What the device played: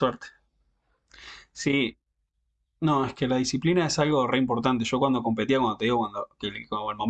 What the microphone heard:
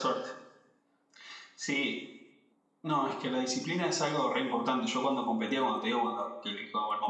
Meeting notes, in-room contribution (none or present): none